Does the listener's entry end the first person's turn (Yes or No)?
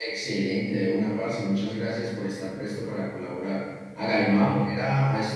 No